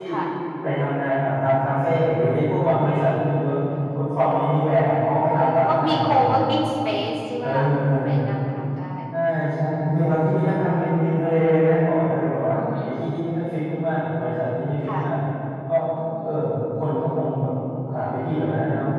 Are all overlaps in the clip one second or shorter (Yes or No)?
No